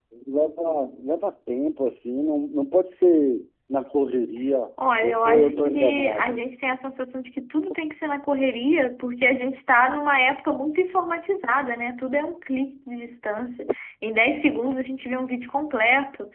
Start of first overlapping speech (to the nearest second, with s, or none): 5 s